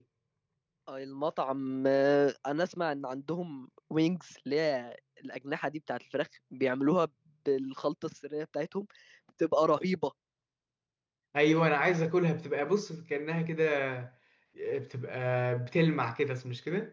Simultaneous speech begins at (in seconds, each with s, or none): none